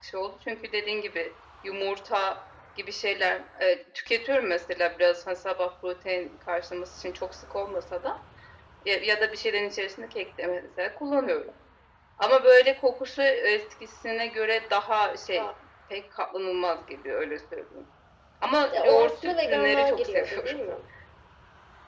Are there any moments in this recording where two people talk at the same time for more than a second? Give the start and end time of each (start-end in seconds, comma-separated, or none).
18.7-20.6